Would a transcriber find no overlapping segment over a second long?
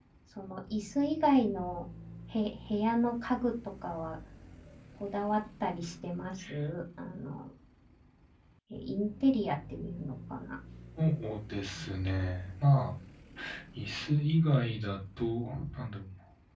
Yes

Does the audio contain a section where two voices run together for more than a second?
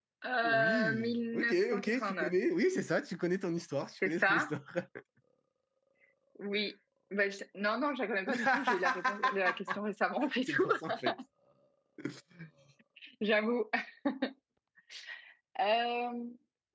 Yes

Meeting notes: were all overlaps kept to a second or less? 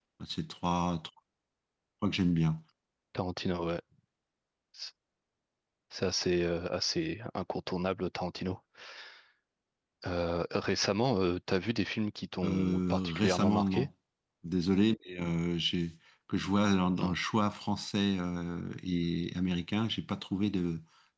No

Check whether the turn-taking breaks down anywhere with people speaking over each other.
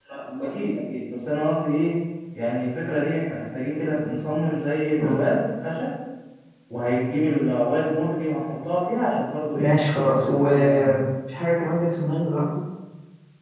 Yes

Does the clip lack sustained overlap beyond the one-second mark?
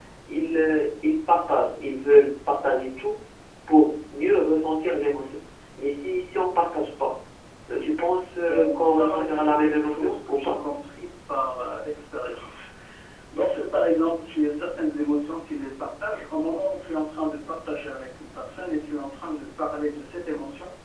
No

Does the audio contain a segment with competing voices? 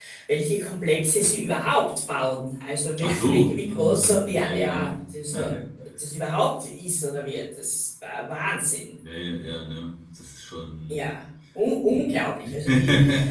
Yes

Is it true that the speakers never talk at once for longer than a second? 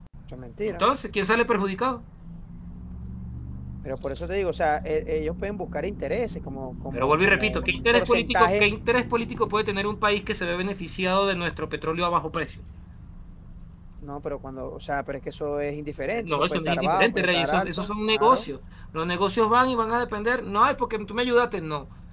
No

